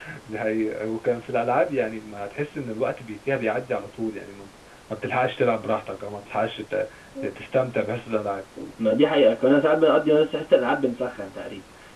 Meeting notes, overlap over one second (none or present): none